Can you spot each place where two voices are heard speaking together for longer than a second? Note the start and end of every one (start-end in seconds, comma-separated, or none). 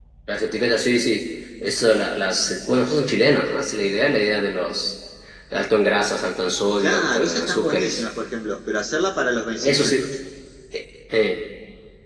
6.8-8.0